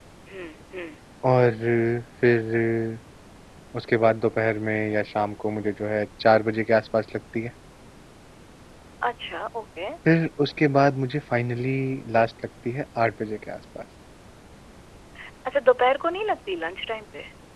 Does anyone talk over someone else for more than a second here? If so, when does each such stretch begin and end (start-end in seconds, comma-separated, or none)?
none